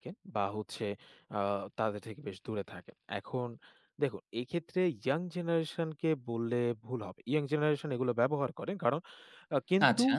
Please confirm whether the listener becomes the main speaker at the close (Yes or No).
No